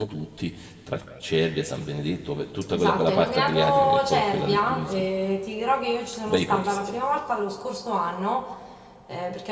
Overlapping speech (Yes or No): Yes